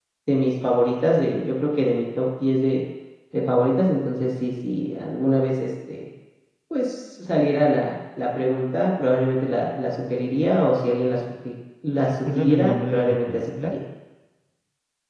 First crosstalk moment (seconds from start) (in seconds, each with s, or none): 12.1 s